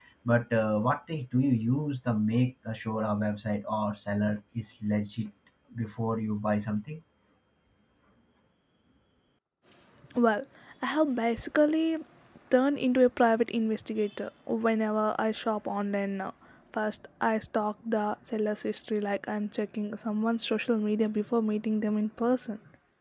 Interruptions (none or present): none